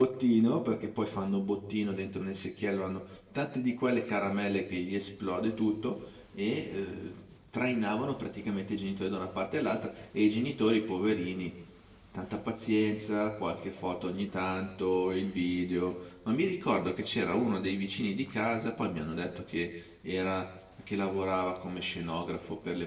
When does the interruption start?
none

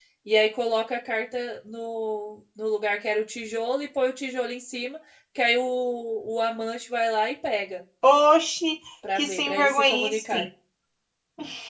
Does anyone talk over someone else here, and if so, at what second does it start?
9.0 s

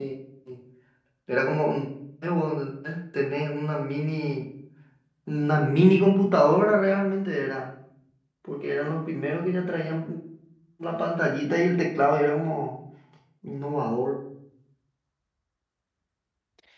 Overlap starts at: none

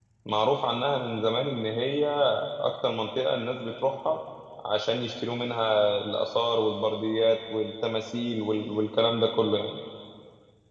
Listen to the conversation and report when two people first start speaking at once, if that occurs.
none

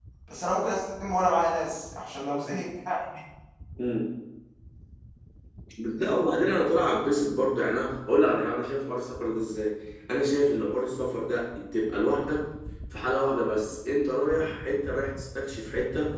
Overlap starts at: none

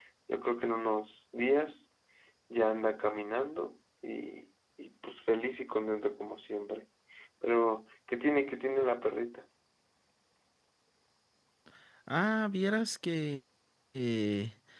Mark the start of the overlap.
none

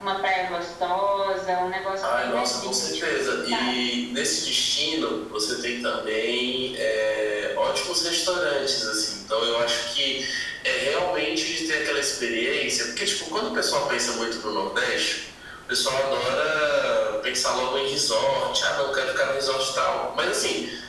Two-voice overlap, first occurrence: 2.0 s

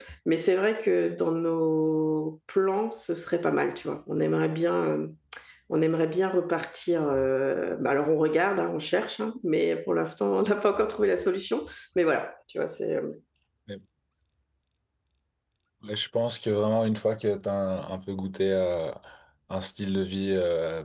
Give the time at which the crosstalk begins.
none

